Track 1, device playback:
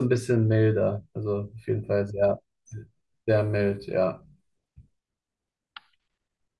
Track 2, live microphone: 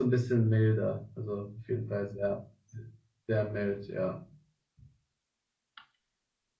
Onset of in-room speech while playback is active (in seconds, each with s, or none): none